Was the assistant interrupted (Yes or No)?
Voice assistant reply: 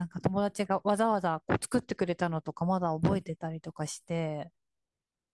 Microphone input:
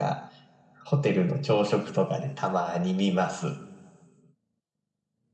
Yes